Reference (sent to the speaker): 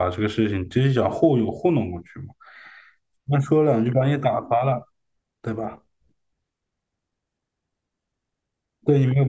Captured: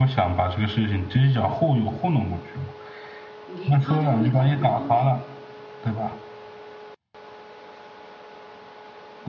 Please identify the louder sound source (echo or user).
echo